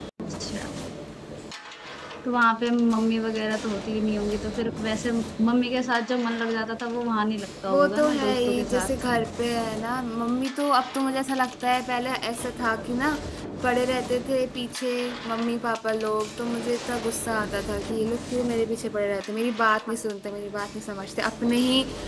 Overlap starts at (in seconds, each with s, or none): 7.7 s